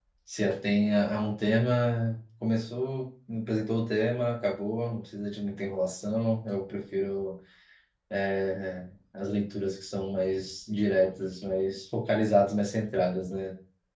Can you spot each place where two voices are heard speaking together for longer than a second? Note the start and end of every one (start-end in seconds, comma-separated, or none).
none